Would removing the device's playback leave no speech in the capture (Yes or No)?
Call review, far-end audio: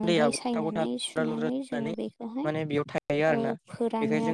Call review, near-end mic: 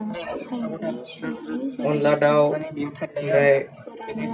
No